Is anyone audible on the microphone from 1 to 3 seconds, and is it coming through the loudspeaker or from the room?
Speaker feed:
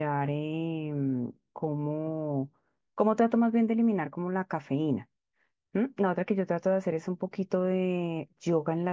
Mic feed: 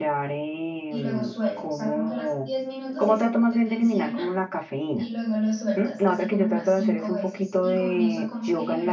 both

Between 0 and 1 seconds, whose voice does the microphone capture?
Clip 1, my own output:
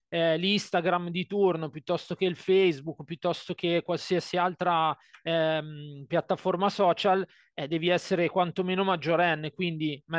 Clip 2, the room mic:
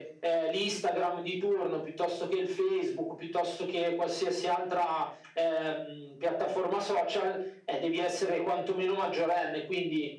echo only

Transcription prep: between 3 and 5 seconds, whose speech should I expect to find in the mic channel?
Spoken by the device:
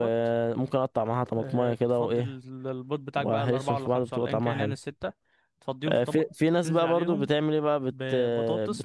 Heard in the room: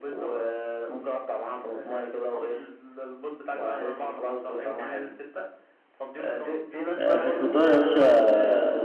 echo only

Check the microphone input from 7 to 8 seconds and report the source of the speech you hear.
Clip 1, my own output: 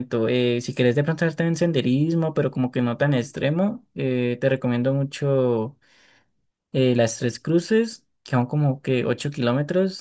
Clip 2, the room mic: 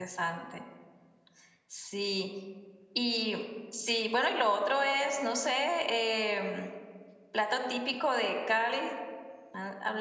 user only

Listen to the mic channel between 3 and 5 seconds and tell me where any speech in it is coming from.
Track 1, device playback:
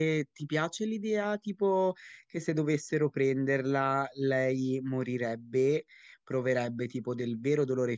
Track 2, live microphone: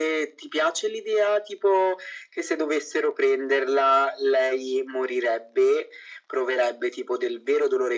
echo only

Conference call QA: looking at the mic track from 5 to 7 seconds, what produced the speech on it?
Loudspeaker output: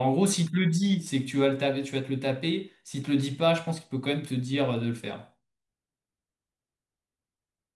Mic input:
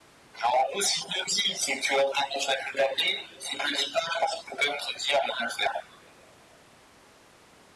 echo only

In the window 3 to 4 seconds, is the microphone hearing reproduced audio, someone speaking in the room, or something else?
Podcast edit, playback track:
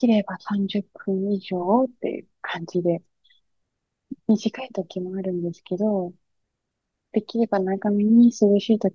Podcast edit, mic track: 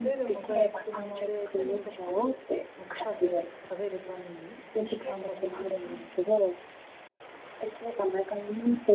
both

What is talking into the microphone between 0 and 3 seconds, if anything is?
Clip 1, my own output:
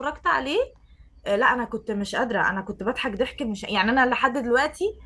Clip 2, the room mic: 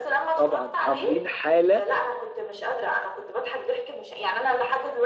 both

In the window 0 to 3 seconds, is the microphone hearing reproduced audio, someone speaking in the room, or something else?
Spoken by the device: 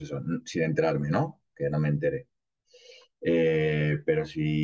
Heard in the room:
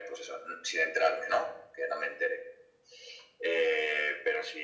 echo only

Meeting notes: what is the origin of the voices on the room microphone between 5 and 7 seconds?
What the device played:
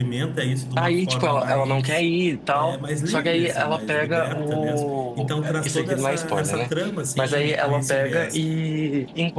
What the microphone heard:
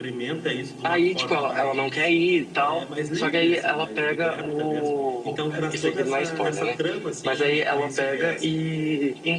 echo only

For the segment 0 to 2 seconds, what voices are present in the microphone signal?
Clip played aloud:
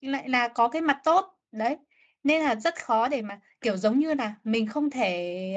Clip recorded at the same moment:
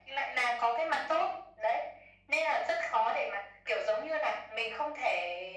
echo only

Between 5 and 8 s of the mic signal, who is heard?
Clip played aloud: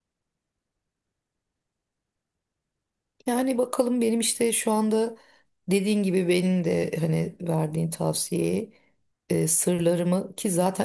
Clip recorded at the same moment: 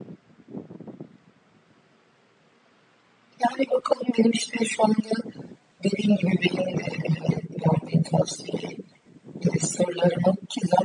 echo only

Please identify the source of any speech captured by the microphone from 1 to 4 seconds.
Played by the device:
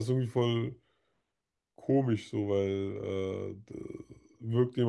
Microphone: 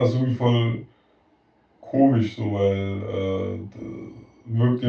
echo only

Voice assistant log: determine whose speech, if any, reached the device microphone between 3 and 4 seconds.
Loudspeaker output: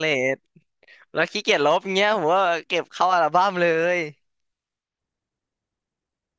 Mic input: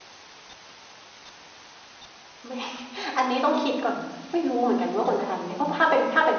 user only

